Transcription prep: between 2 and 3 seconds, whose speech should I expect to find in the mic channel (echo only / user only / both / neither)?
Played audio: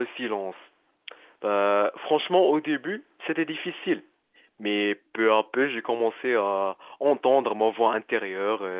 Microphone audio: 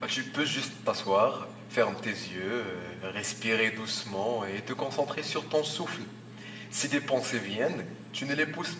user only